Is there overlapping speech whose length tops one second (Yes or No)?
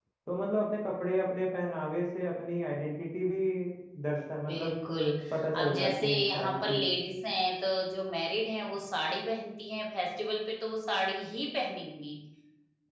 Yes